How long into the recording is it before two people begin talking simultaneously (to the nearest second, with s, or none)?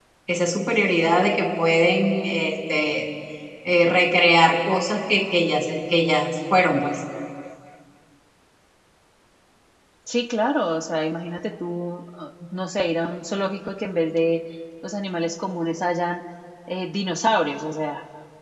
none